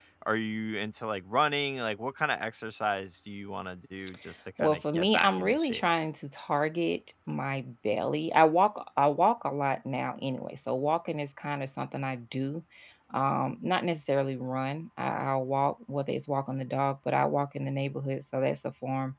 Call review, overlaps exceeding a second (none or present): present